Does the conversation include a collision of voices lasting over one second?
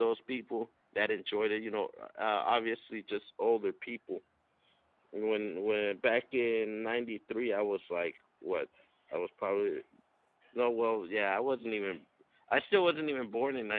No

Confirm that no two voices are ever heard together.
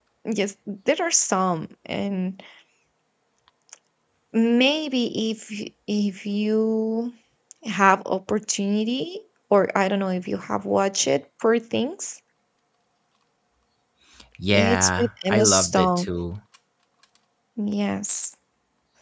No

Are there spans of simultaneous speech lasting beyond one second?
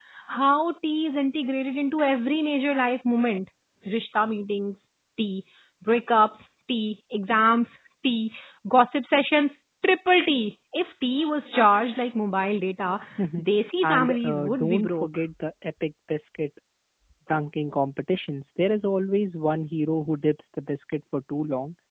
Yes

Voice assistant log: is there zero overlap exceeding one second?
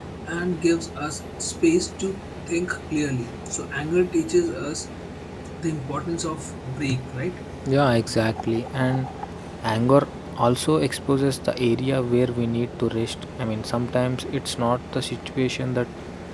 Yes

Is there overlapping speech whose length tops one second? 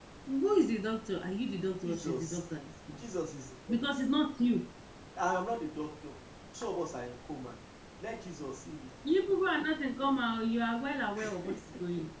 No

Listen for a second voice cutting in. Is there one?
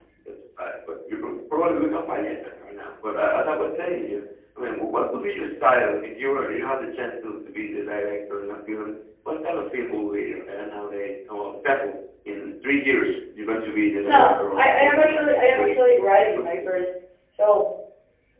Yes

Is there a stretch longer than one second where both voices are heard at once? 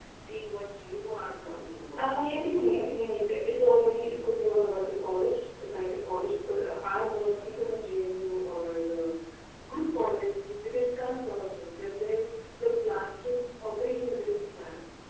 No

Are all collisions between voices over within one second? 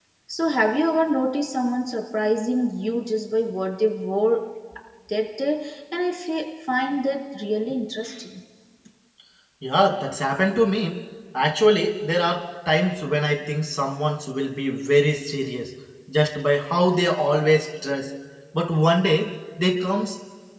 Yes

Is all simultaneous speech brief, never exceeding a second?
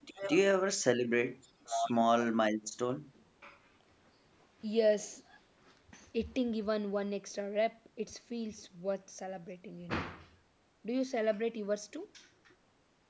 Yes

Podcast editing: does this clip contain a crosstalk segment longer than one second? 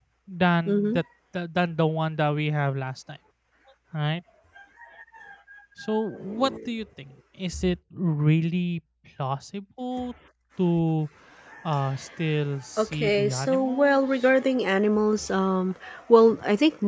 Yes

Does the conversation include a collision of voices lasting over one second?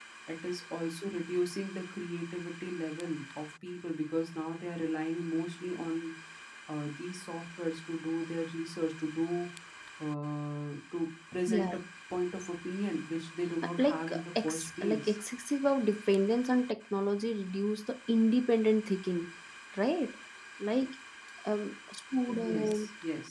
Yes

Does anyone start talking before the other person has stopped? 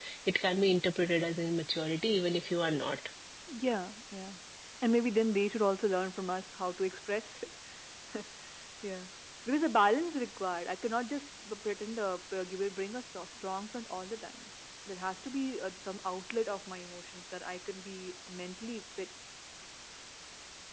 No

